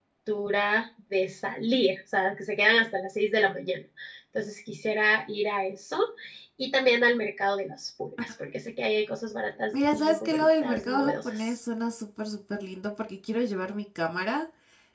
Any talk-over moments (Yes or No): Yes